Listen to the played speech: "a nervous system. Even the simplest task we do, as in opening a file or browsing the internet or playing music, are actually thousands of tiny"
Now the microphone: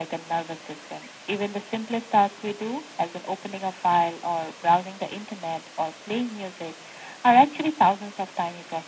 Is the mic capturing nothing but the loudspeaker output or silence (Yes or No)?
Yes